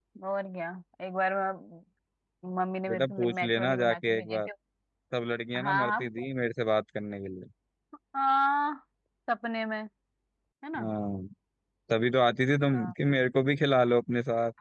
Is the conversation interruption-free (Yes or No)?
No